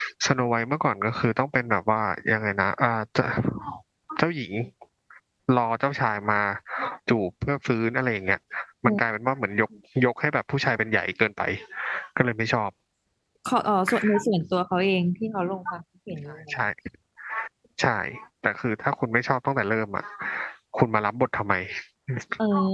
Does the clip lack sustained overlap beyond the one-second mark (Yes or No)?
Yes